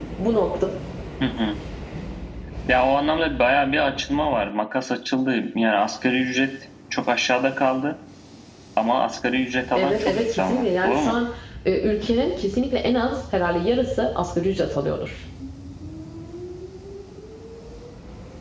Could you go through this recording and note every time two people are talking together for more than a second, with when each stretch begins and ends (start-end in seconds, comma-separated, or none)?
9.8-11.2